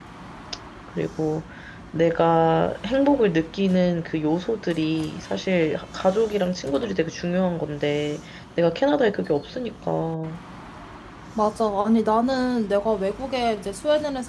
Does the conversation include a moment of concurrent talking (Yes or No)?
No